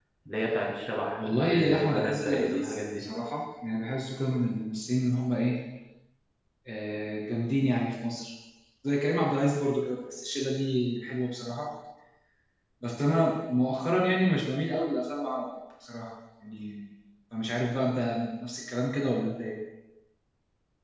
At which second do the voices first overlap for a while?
1 s

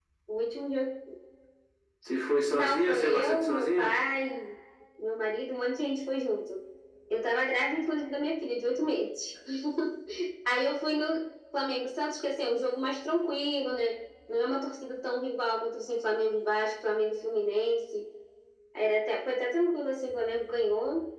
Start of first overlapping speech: 3 s

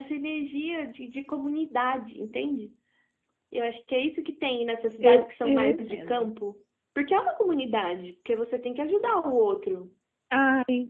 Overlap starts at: 5 s

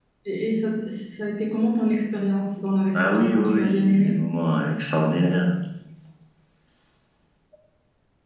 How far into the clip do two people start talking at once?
3 s

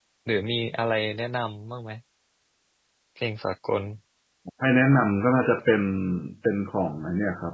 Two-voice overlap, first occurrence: none

